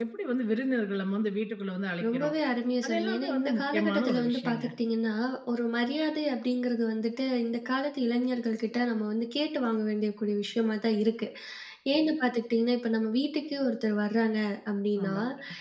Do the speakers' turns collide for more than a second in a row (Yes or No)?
Yes